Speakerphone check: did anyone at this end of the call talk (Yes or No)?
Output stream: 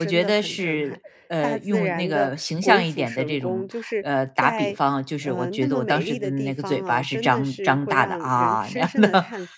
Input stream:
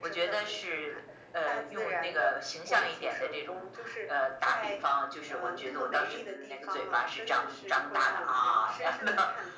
No